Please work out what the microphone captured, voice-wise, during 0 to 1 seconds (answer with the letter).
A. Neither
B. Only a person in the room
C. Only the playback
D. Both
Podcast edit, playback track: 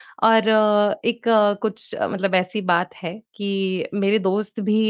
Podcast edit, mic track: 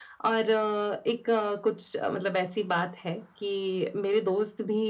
C